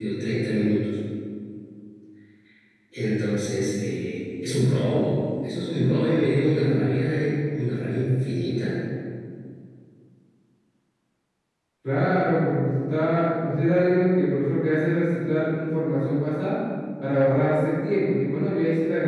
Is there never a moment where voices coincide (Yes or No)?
Yes